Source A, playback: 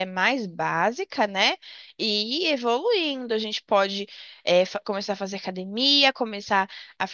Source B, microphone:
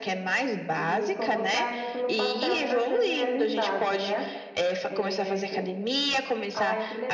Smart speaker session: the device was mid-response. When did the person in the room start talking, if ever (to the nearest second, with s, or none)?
1 s